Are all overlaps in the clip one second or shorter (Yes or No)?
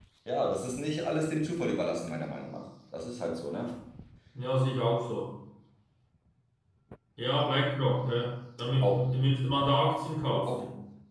Yes